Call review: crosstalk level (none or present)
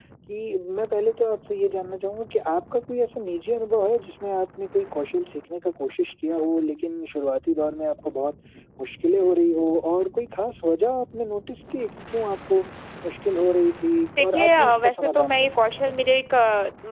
present